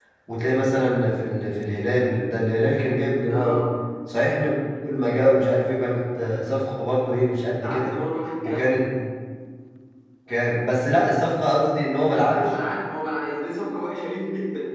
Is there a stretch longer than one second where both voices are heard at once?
No

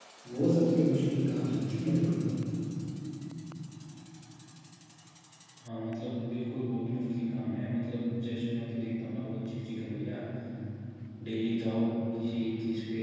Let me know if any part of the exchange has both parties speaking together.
No

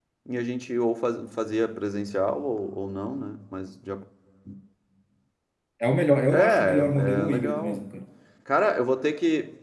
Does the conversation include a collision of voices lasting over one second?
Yes, from 6.3 s

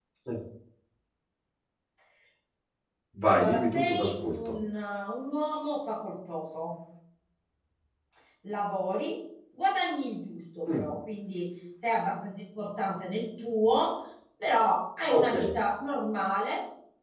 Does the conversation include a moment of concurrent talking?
Yes, from 3.2 s

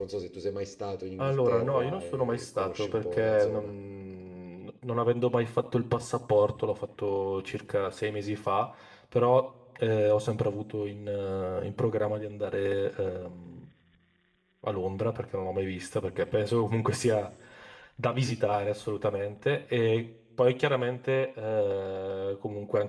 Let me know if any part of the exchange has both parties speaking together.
Yes, from 1.2 s

